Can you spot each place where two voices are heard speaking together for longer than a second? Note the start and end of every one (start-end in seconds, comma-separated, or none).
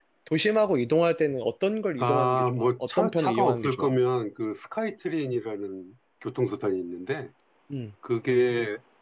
2.0-3.9